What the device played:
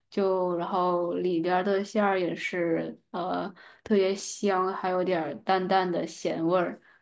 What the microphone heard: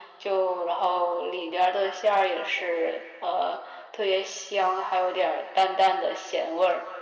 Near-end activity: none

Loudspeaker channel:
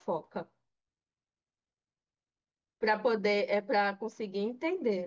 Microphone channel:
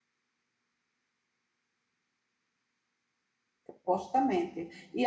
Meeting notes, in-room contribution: present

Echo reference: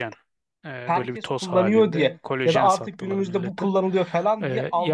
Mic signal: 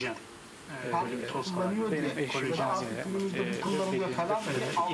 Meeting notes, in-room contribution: present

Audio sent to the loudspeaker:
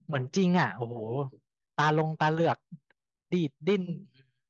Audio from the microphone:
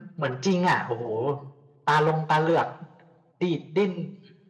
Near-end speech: none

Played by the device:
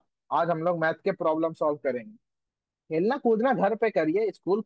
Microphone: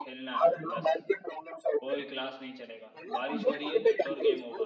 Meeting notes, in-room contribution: present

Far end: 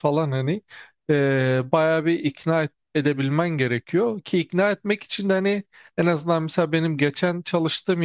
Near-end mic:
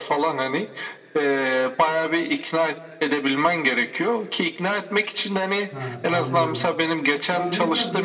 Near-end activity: present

